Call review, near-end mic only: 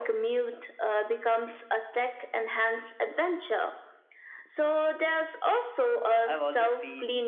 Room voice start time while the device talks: 6 s

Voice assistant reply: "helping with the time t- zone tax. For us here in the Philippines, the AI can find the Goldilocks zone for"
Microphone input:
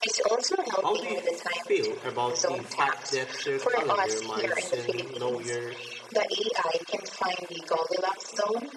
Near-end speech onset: 1 s

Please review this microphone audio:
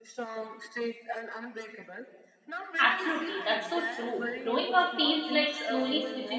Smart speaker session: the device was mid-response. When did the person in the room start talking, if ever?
3 s

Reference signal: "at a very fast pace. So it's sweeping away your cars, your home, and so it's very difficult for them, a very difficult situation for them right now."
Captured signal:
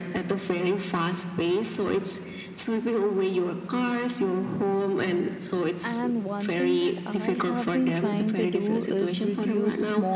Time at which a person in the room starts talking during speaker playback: 6 s

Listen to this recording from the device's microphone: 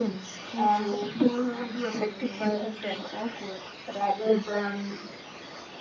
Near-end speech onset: 0 s

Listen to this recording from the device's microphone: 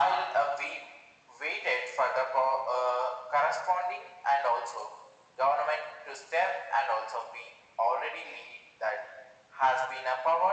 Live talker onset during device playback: none

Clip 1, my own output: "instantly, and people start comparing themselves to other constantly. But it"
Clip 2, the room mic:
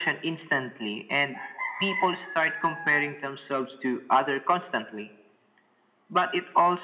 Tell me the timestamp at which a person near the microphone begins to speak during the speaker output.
none

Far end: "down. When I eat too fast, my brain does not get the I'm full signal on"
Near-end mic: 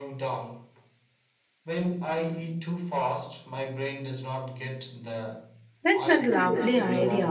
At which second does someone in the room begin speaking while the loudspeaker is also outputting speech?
6 s

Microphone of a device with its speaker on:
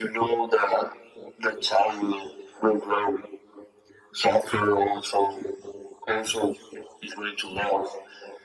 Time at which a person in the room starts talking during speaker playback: none

